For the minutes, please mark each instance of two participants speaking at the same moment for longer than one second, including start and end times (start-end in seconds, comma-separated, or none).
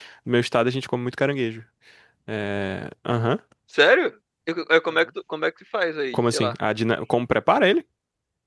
none